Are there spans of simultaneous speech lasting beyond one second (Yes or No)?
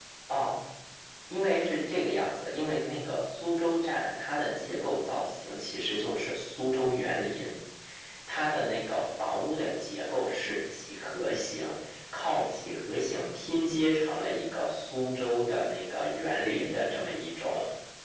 No